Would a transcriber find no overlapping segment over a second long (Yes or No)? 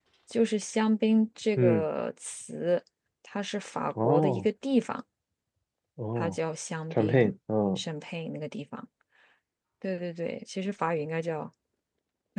Yes